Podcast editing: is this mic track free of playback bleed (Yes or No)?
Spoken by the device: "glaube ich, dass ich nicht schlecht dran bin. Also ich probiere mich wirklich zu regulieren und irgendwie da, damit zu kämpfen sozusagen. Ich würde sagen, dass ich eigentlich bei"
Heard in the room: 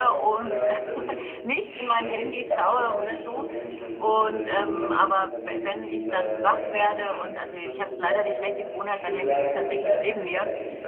No